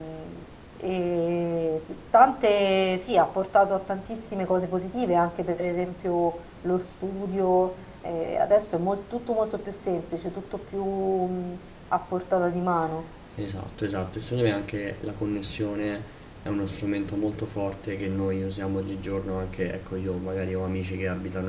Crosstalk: none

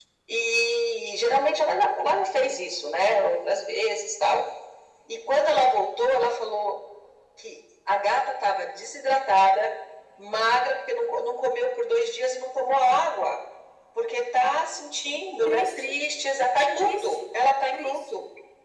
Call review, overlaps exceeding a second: none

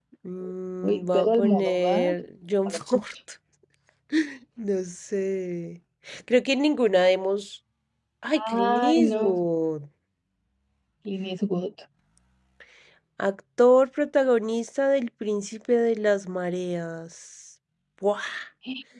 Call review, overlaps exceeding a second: present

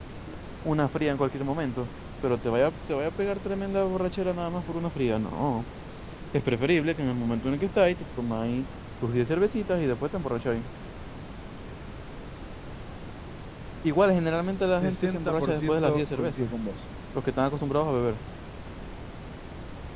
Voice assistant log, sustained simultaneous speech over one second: present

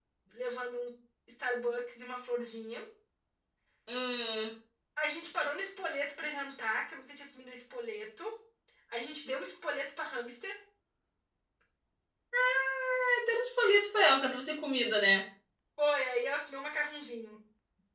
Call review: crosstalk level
none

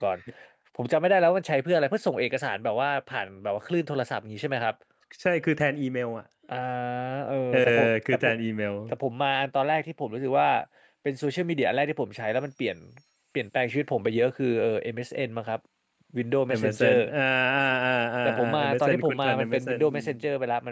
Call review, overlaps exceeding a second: present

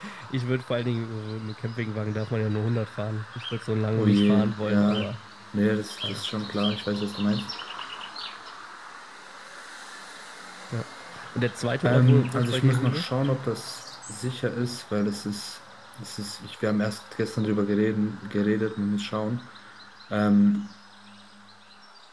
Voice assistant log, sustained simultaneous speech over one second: present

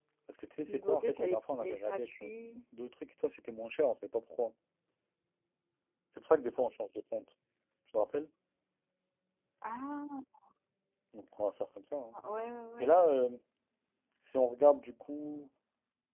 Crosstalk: present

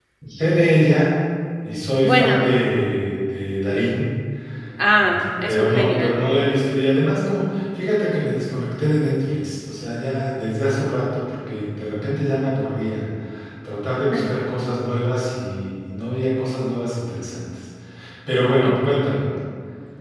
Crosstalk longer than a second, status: present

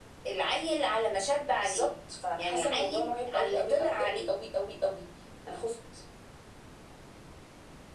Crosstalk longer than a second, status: present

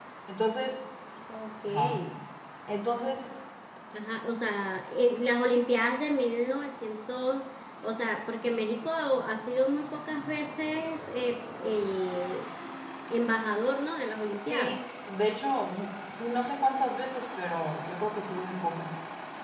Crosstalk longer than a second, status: none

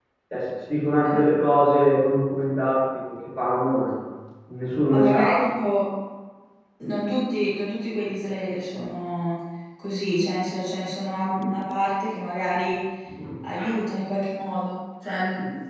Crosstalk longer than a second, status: none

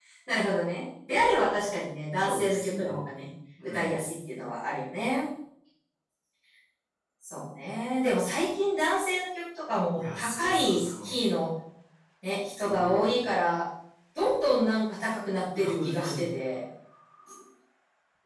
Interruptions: present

